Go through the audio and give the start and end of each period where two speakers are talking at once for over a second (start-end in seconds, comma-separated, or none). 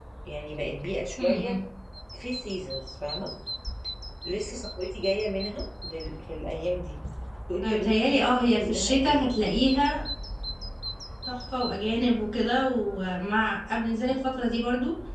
7.6-9.3